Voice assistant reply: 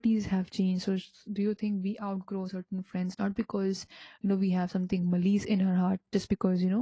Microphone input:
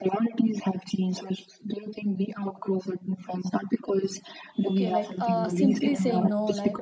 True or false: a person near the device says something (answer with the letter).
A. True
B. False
A